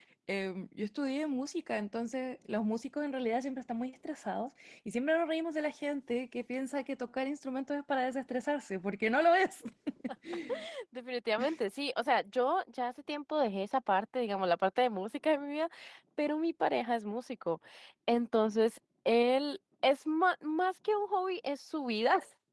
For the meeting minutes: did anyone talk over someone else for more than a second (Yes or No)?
No